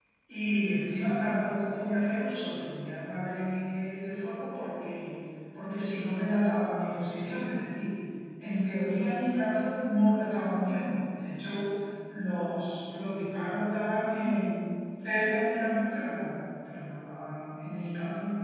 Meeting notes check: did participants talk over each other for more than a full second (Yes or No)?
No